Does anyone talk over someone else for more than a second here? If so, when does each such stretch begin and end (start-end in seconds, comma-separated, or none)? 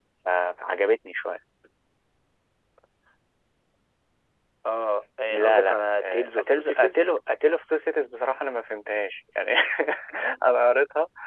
5.3-7.0